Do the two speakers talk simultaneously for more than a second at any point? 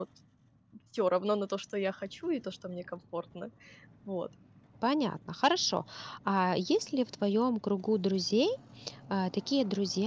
No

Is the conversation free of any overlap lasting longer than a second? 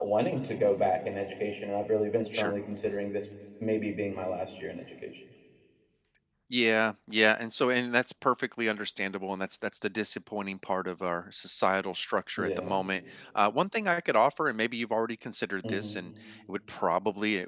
Yes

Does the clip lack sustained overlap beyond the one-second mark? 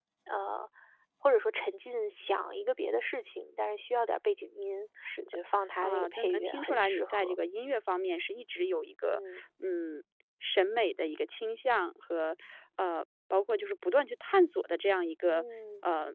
No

